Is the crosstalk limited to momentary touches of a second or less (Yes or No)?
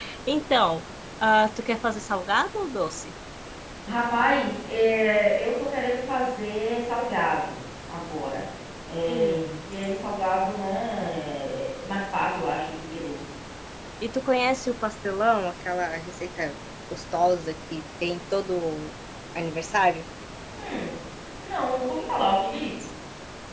Yes